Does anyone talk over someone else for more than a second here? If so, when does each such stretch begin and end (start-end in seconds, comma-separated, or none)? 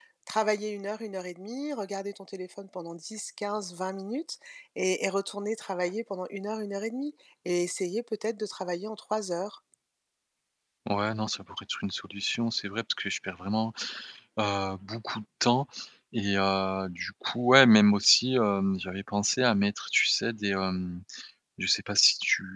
none